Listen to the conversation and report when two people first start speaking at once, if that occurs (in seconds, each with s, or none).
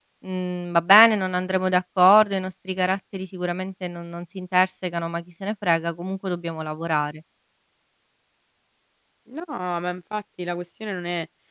none